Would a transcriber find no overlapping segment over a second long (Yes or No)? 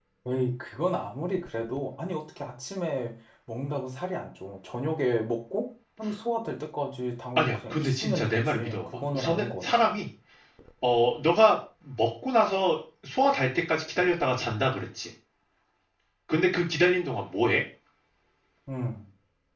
No